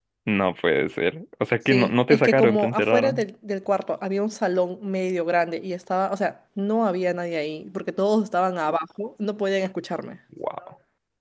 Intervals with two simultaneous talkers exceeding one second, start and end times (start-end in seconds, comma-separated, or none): 1.7-3.2